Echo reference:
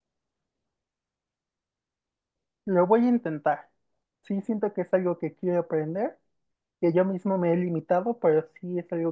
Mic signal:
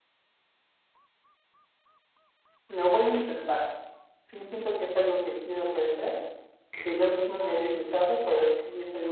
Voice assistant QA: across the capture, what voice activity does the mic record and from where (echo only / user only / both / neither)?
both